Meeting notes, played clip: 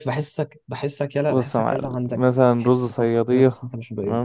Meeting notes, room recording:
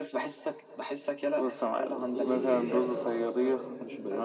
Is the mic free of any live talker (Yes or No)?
No